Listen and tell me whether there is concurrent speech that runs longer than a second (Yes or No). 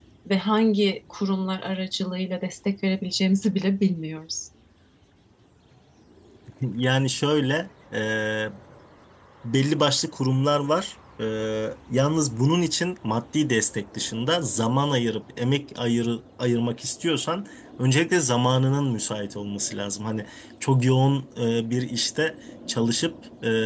No